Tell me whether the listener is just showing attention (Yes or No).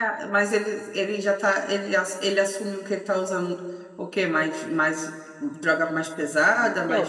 No